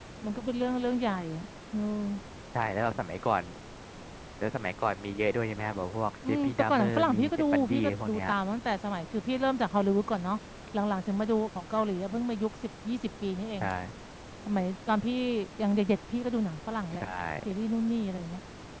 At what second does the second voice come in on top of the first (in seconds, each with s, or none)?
6.2 s